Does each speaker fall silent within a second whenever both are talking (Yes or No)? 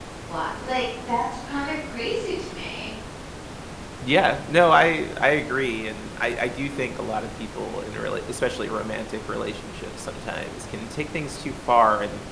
Yes